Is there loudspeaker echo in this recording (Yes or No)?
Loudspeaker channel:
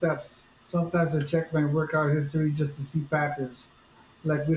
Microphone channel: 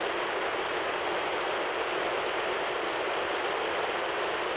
No